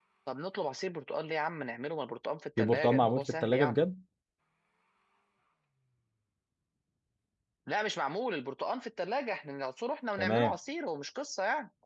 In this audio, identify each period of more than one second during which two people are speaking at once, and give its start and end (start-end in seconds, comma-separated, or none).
2.6-3.8